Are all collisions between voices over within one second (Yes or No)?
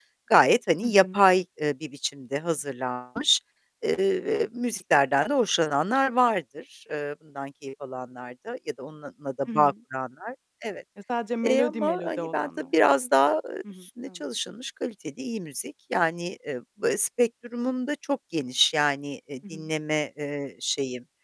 No